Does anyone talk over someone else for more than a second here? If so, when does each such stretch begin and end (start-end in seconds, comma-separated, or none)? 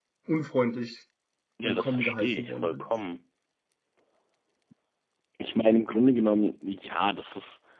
1.6-2.8